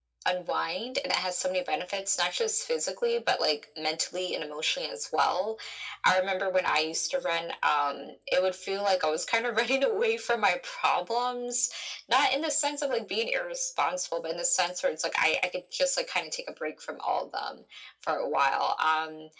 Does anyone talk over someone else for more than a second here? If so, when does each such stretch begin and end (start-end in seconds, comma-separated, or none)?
none